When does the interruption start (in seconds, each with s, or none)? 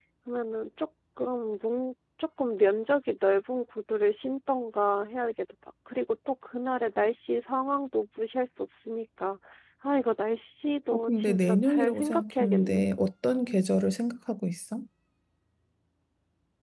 10.9 s